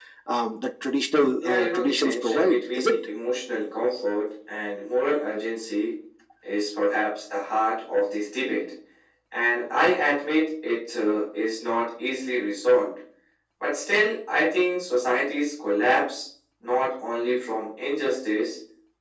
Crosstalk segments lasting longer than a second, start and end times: 1.4-3.0

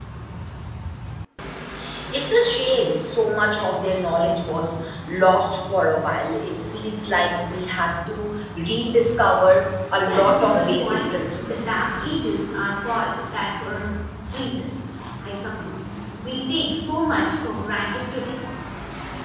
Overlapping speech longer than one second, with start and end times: 10.1-11.6

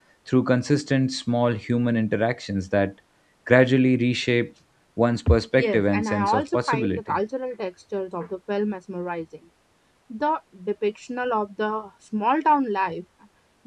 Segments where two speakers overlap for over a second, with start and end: 5.7-7.2

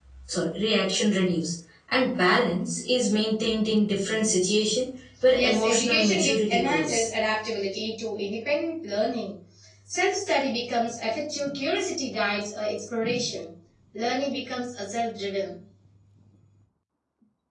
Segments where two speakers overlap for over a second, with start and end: 5.3-7.1

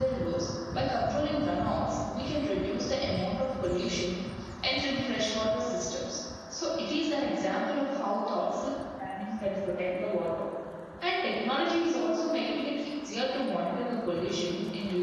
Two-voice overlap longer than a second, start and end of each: none

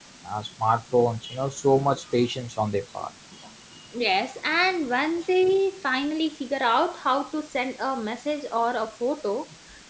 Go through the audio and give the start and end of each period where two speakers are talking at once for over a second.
none

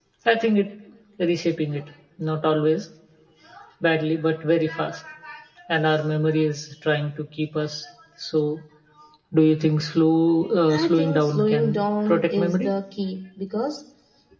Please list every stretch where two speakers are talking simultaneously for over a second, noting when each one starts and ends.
10.7-12.7

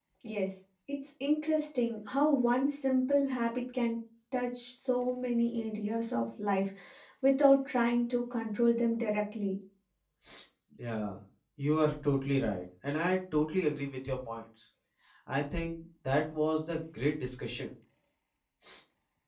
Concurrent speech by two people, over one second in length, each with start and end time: none

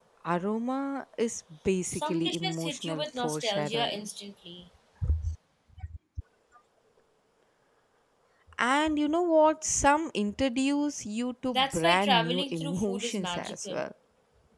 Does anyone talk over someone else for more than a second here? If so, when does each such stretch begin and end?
1.9-4.1, 11.5-13.8

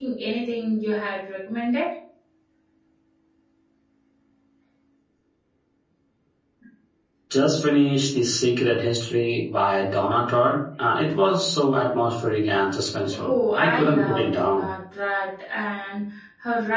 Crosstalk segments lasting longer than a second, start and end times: 13.2-14.7

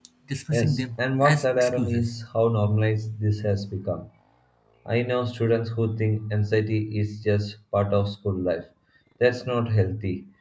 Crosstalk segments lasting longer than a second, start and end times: 0.5-2.1

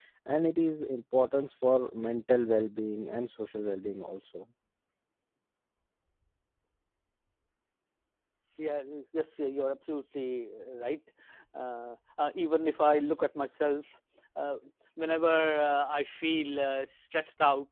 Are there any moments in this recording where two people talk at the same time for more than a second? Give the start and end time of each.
none

